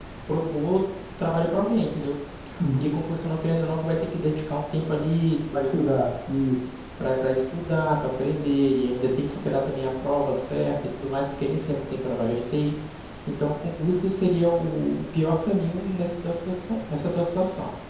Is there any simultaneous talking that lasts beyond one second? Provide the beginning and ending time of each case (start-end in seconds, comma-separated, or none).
none